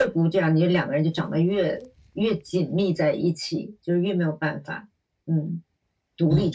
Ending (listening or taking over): taking over